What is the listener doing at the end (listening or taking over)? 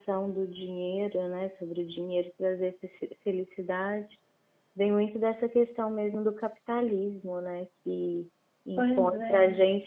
listening